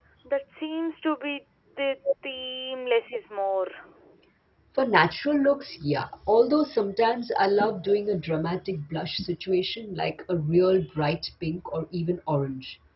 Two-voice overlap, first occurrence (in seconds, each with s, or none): none